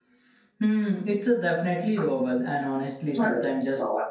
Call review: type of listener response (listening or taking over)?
listening